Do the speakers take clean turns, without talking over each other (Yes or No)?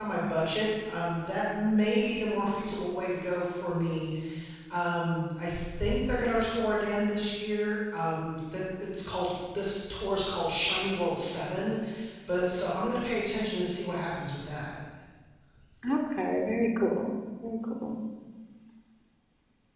Yes